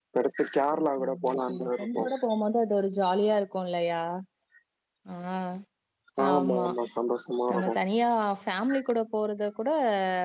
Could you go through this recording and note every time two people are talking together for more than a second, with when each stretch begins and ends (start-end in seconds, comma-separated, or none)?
0.8-2.0